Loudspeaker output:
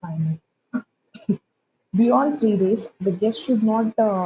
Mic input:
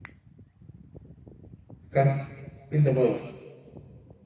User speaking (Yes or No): Yes